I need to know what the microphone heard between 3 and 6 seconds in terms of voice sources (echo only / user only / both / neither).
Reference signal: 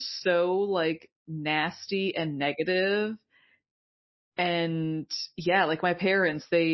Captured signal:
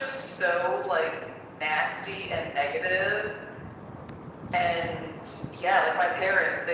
echo only